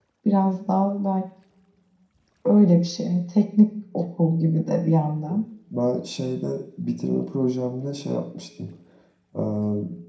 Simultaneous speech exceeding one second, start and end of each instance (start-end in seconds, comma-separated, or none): none